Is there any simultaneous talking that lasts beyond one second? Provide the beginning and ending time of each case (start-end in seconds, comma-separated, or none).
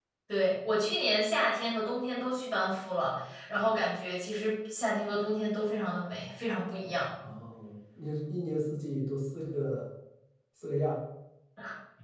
none